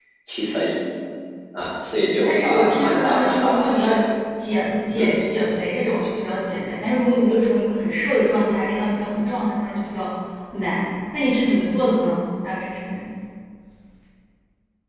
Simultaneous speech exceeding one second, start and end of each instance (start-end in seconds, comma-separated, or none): 2.2-3.9